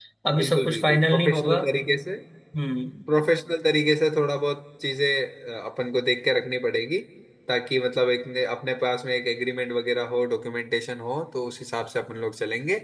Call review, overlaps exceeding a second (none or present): present